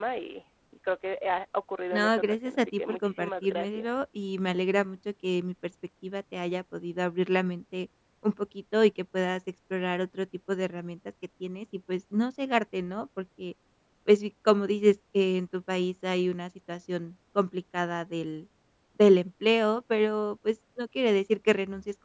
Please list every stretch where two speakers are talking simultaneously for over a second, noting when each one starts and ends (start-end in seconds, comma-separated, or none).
1.9-3.9